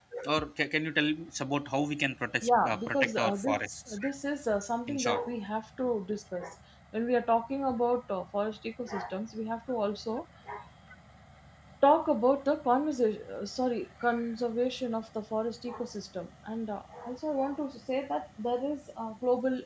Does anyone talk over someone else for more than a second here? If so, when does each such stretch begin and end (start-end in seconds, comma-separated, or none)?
2.4-4.0